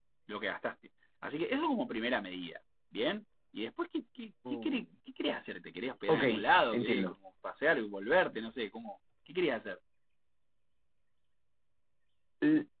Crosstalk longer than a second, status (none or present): none